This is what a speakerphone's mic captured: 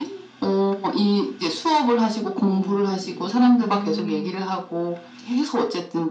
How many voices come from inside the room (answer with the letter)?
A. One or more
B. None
A